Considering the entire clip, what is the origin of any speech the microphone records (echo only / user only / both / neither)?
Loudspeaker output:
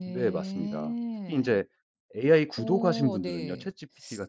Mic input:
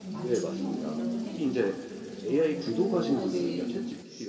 both